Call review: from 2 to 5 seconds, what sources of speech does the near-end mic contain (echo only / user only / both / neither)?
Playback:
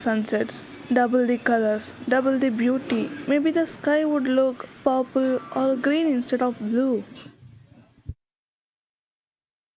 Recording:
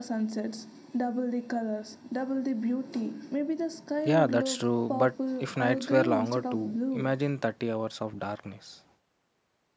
both